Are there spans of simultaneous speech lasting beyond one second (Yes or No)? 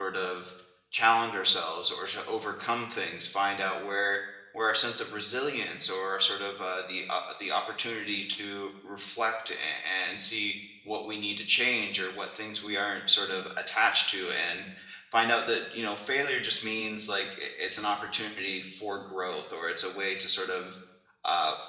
No